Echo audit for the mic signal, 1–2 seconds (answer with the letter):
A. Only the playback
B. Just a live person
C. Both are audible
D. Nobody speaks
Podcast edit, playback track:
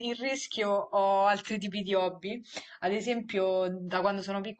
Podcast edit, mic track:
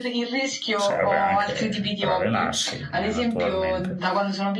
C